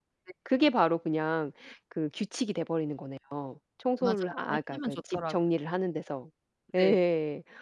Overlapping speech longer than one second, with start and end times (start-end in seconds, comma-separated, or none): 4.0-5.3